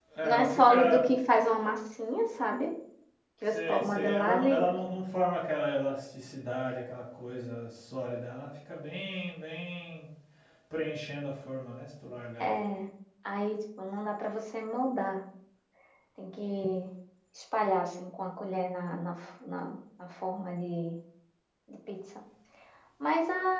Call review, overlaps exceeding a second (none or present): present